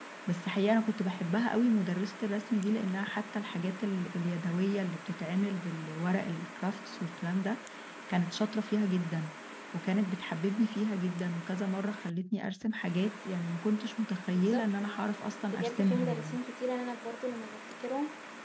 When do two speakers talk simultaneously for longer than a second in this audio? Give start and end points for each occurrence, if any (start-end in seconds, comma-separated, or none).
14.3-16.4